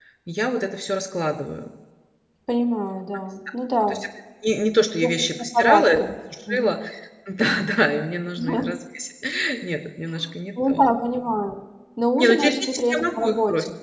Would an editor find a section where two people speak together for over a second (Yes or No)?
Yes